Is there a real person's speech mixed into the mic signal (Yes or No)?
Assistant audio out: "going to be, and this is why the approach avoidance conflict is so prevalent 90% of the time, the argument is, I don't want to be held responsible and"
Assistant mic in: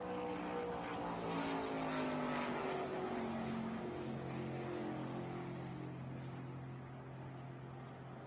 No